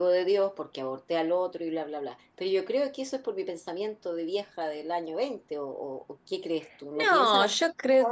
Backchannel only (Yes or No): No